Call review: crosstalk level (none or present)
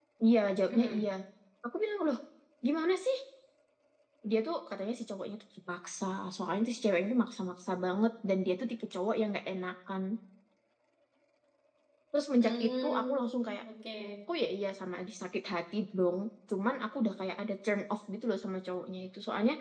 present